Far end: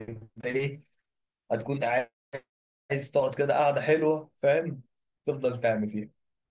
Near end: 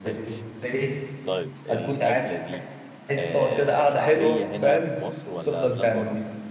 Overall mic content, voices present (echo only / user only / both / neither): both